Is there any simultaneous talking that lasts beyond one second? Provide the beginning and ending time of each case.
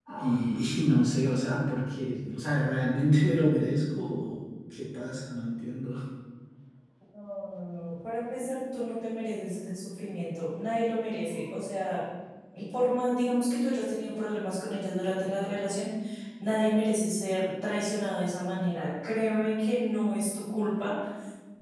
none

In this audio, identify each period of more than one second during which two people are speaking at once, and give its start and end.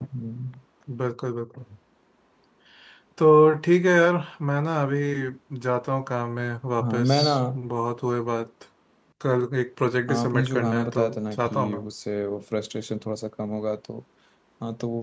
10.1-11.8

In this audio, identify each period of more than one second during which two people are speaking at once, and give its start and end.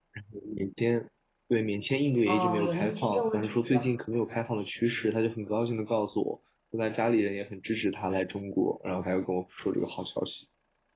2.3-3.9

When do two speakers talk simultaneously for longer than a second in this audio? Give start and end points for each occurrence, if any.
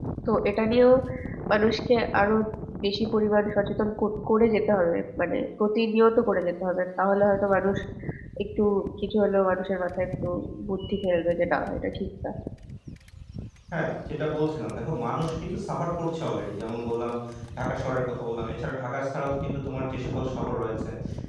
none

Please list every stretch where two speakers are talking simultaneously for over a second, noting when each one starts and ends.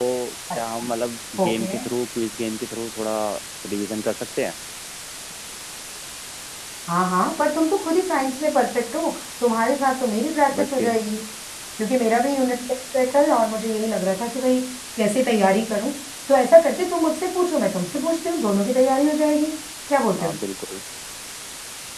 none

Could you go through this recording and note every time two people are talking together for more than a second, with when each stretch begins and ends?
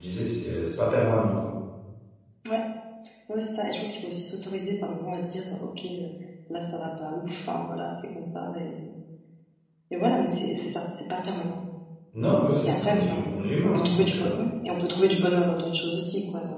12.6-14.4

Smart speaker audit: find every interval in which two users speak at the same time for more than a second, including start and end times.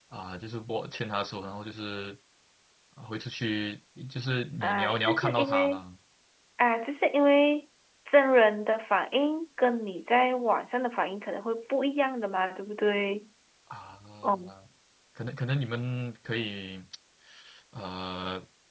4.6-5.8

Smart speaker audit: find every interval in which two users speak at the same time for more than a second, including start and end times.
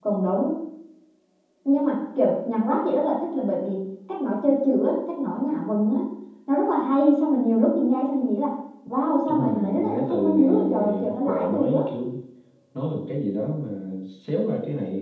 9.3-11.8

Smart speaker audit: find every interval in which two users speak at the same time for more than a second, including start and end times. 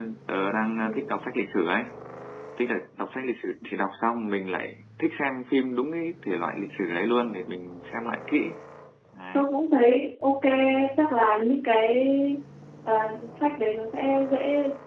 none

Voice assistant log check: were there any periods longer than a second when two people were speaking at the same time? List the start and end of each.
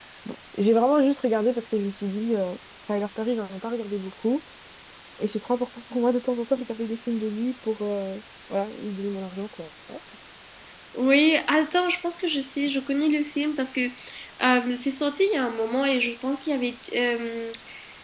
none

